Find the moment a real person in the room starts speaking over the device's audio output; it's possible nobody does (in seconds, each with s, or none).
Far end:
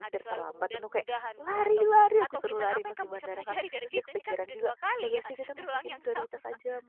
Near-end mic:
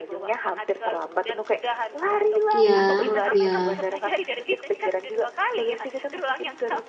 2.5 s